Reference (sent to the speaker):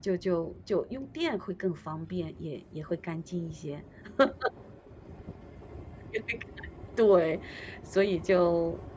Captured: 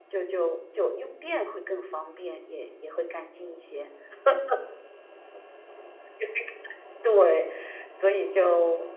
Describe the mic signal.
echo only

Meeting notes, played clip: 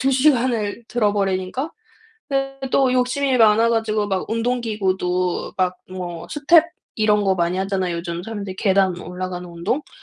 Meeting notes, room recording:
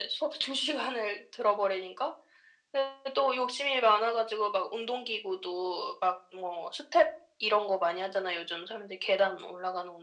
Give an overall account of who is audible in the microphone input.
echo only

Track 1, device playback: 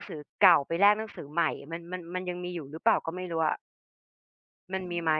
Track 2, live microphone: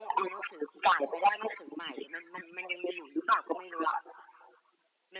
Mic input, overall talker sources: echo only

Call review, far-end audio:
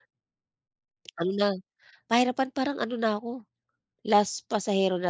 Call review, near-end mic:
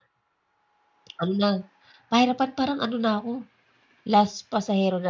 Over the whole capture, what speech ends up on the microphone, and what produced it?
echo only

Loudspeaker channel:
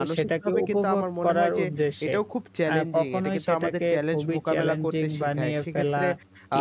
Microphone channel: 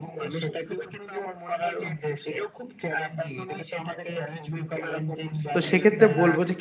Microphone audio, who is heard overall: both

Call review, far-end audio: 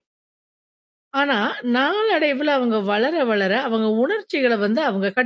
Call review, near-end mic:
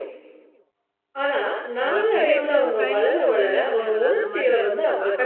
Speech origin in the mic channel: both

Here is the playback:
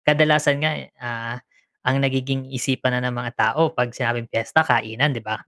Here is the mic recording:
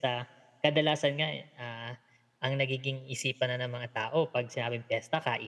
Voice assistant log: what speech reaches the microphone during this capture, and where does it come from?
echo only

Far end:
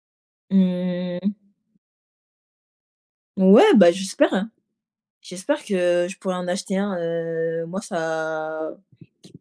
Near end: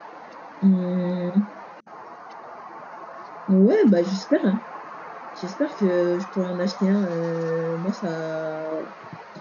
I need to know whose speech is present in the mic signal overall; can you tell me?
echo only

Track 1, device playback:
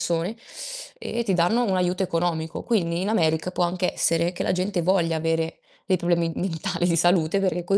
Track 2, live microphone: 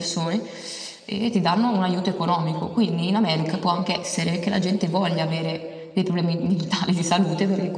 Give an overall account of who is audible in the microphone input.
echo only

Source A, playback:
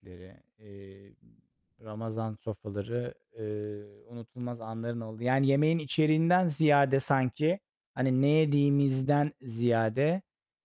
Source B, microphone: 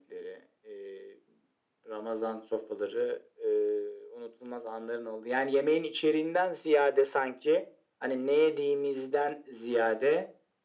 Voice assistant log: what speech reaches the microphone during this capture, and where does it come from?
echo only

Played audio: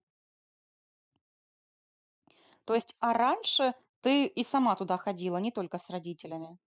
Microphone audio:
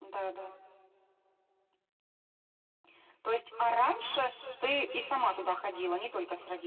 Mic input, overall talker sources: echo only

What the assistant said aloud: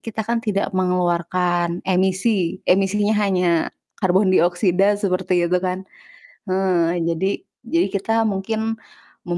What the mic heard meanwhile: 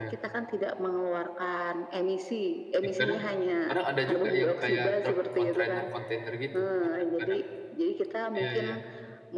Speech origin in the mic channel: both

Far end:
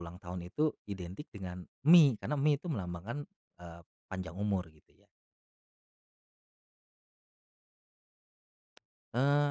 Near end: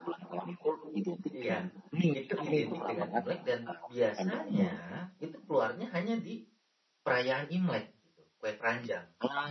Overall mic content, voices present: both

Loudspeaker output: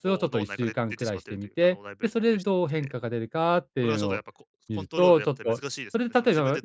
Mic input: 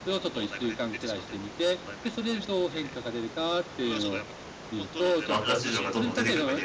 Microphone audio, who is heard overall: both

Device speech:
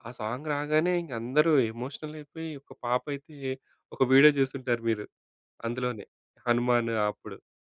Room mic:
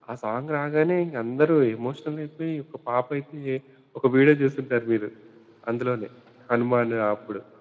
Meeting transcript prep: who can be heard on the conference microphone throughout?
echo only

